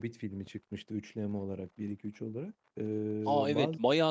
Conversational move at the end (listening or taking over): taking over